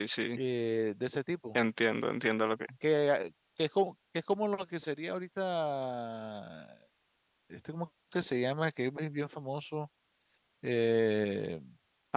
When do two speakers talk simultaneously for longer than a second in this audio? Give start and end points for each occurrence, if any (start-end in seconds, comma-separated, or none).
none